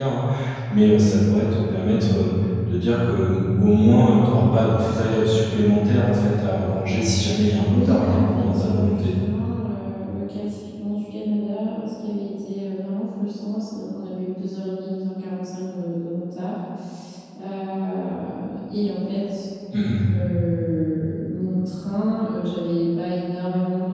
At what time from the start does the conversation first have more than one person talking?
7.7 s

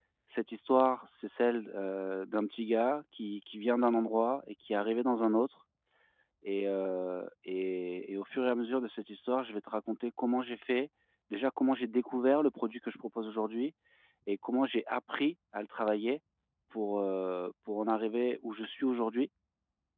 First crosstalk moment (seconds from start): none

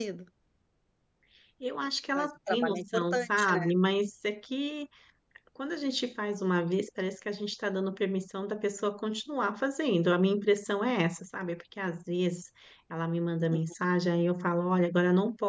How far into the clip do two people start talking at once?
2.1 s

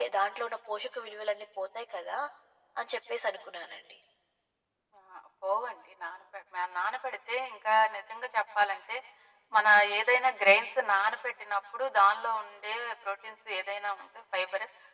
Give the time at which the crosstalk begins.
none

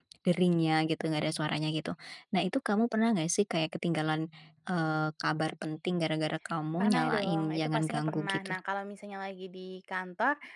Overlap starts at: 6.8 s

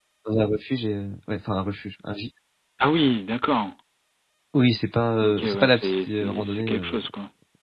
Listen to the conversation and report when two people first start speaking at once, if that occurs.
5.2 s

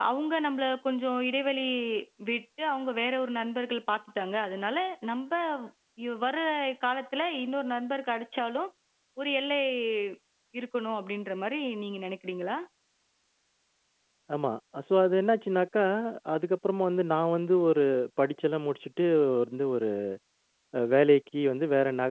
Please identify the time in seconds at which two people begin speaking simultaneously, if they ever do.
none

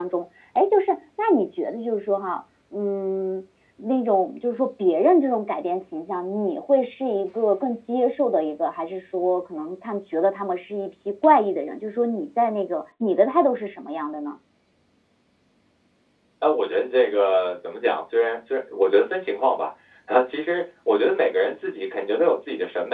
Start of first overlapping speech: none

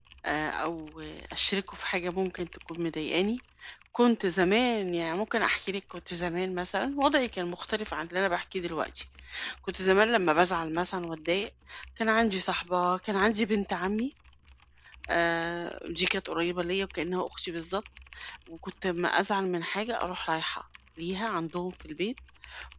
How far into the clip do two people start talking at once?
none

